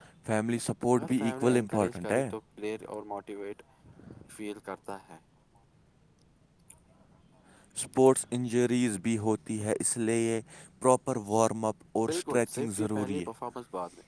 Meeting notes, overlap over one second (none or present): present